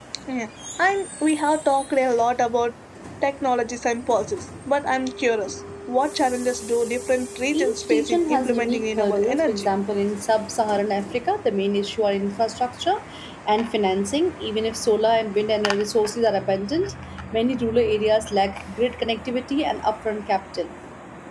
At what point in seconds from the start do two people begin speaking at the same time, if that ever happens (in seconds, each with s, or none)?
7.5 s